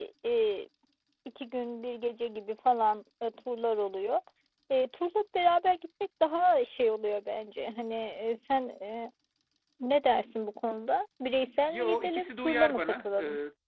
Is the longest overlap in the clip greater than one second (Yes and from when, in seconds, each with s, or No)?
Yes, from 11.7 s